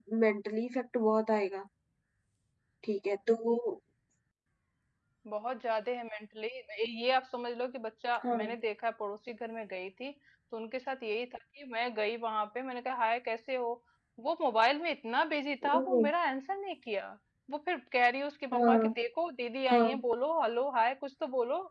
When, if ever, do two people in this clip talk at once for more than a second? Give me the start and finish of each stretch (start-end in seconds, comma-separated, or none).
none